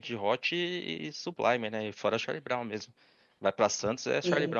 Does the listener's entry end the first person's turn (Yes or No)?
Yes